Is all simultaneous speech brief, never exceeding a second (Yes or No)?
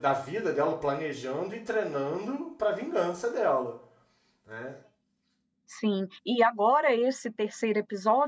Yes